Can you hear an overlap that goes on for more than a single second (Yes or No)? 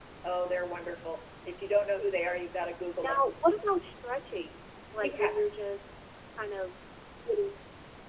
No